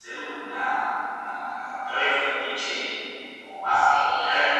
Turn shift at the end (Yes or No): No